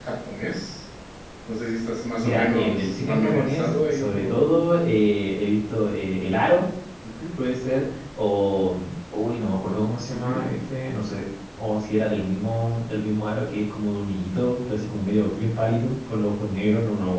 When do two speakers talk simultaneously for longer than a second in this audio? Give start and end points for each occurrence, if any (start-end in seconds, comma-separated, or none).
2.2-4.5